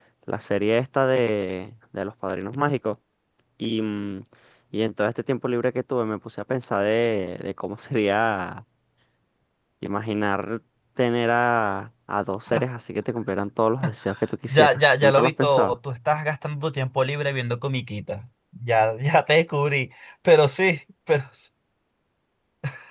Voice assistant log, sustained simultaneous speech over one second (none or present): present